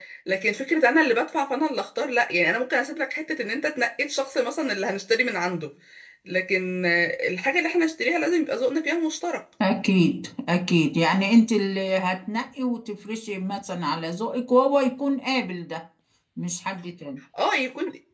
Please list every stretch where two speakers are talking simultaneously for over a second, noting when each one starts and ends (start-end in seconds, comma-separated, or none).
none